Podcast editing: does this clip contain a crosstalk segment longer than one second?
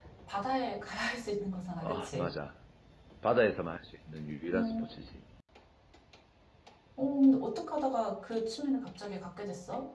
No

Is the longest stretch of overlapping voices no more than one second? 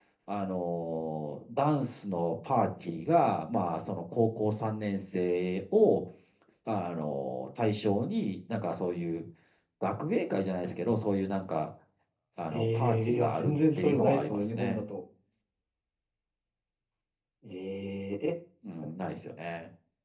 No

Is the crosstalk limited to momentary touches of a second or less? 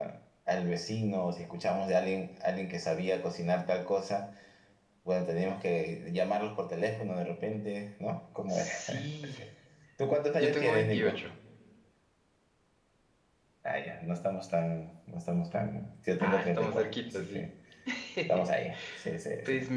No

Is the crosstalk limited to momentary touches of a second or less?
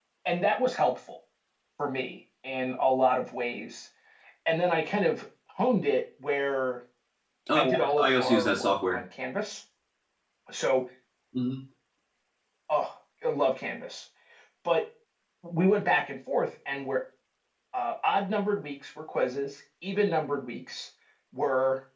No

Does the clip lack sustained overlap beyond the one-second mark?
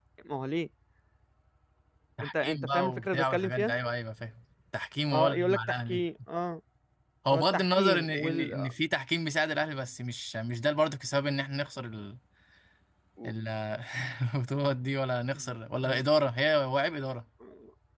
No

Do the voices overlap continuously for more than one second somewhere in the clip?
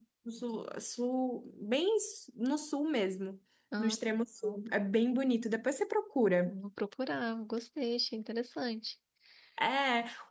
No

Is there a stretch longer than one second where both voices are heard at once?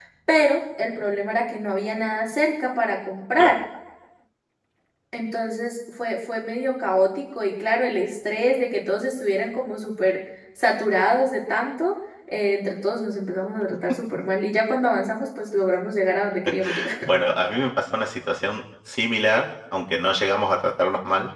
No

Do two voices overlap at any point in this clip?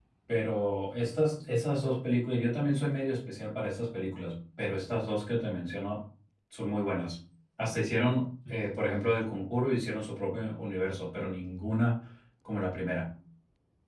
No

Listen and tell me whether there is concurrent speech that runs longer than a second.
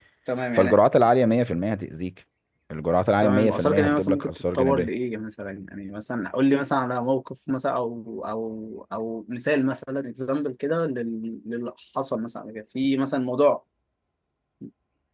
Yes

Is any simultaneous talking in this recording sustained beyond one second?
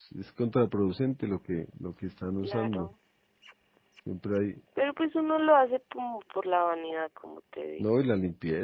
No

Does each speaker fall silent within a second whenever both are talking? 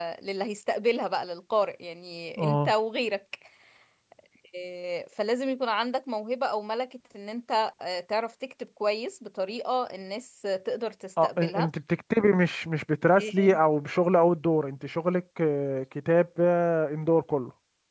Yes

